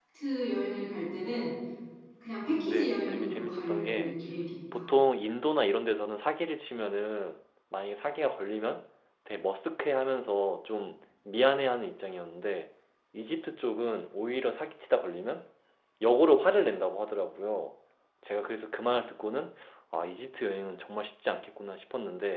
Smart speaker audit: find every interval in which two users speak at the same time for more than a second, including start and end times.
2.7-4.2

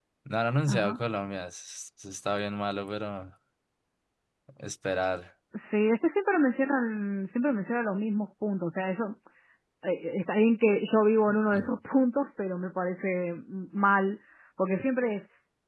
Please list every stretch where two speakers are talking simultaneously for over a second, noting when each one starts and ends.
none

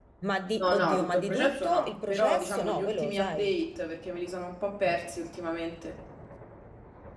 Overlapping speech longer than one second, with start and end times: 0.6-3.5

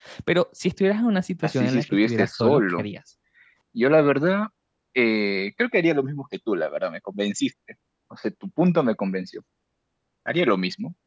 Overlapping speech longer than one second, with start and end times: 1.4-2.8

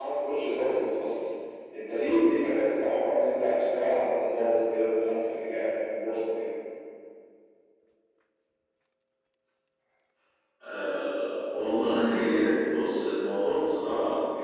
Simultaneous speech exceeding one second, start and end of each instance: none

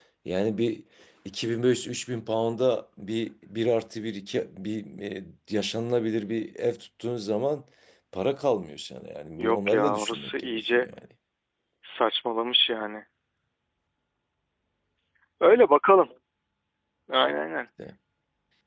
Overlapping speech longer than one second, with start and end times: 9.4-10.9

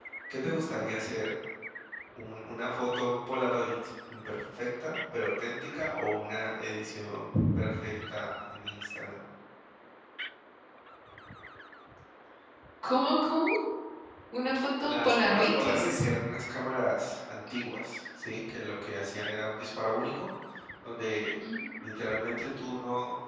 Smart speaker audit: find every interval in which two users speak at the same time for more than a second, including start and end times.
14.8-16.1

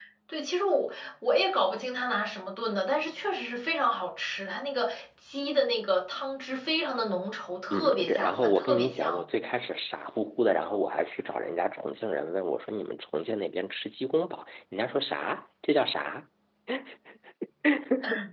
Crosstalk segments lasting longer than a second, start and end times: 7.7-9.2

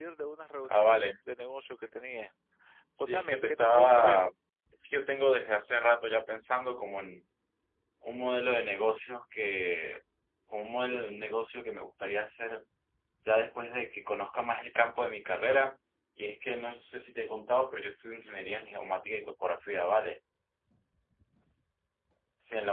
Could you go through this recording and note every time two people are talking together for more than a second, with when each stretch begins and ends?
3.0-4.3

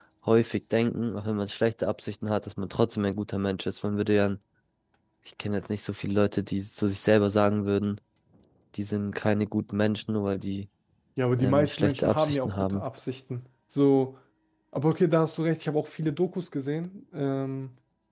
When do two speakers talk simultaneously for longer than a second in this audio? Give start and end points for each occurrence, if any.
11.4-12.8

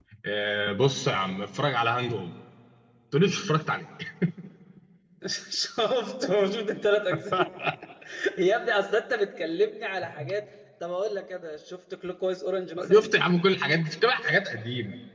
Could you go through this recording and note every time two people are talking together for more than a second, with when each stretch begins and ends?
none

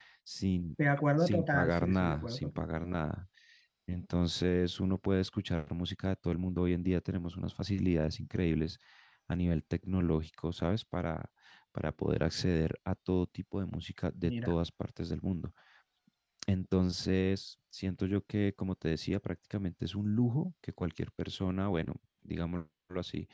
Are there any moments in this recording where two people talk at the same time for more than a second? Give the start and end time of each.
1.2-2.6

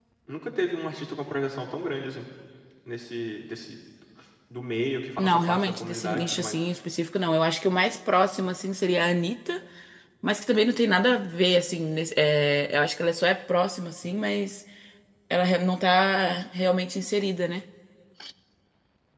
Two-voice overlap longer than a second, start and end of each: 5.2-6.6

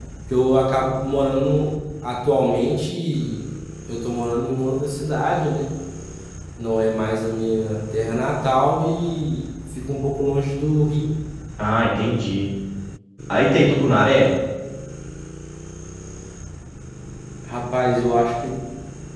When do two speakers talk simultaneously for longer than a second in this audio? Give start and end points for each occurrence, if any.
none

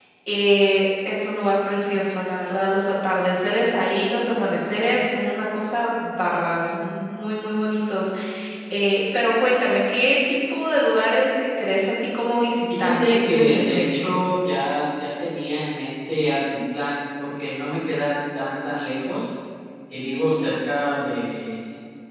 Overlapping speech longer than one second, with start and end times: 12.8-14.1

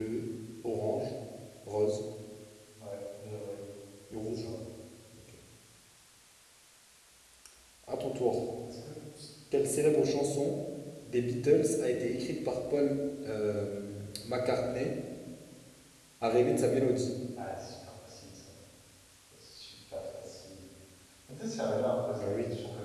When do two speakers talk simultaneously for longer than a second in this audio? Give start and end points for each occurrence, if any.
none

